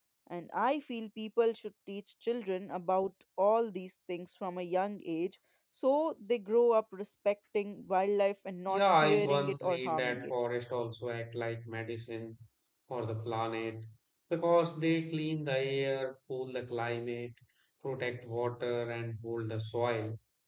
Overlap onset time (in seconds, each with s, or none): 8.7 s